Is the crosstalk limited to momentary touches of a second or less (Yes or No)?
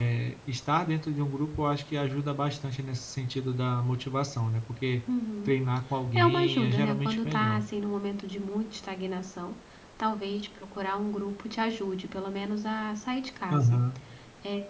No